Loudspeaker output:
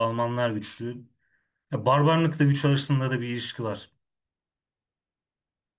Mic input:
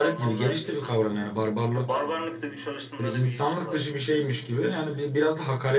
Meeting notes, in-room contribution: present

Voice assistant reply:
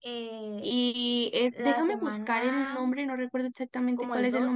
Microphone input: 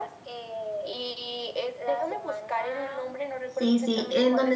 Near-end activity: present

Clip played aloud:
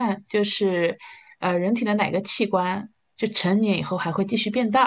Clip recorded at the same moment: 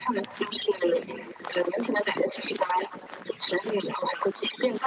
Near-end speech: none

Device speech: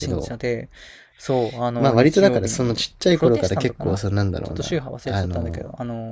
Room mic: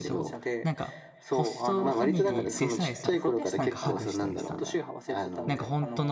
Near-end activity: present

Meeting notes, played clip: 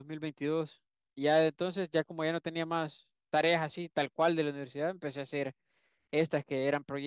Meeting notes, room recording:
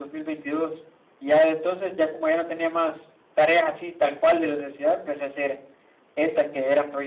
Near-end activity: none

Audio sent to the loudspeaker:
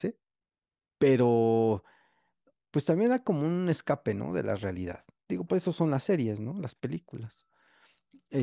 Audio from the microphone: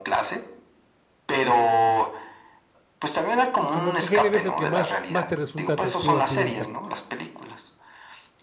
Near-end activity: present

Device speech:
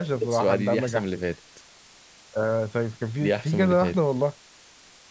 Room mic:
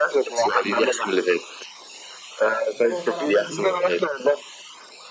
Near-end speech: present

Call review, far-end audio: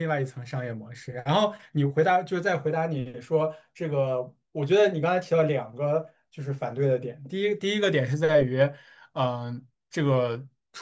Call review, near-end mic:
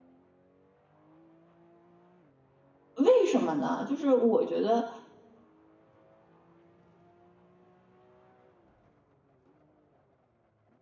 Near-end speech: present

